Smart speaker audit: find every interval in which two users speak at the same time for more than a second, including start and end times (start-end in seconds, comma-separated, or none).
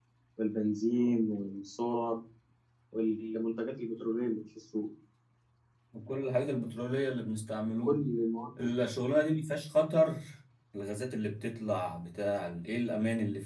none